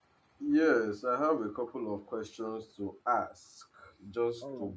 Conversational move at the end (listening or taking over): listening